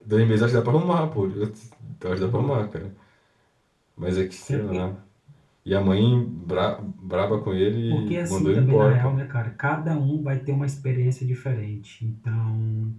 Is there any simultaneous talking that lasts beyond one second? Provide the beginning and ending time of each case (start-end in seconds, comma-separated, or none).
7.9-9.1